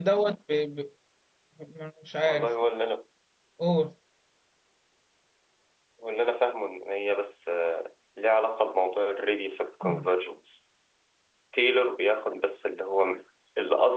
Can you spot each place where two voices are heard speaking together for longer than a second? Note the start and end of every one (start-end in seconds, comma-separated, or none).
none